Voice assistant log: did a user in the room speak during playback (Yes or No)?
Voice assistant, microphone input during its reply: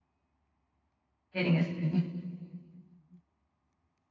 Yes